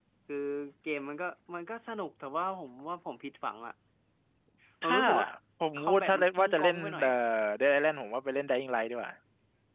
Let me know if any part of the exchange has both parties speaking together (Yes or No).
Yes